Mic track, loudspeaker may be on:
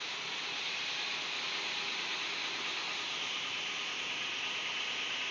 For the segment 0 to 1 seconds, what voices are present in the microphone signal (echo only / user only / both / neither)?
neither